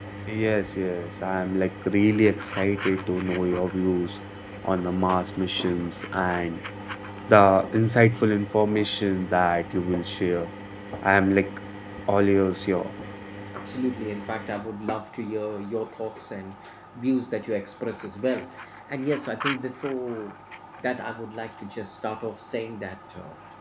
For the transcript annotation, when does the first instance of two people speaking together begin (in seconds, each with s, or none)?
none